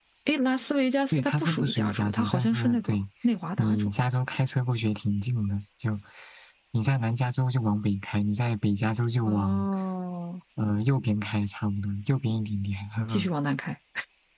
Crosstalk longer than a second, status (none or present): present